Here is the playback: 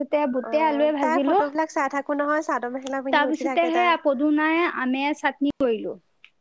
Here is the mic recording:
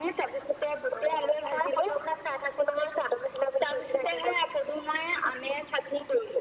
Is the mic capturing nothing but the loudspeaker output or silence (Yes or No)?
Yes